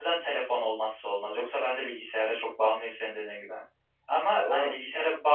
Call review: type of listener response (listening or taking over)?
listening